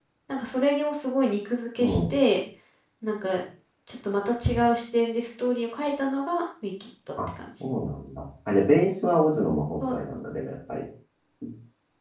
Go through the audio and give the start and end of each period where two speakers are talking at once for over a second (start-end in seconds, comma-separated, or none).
none